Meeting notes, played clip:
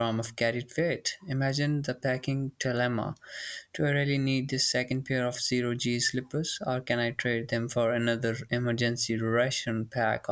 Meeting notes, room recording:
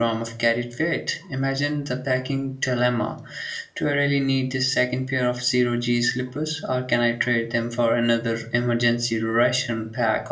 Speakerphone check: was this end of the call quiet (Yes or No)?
Yes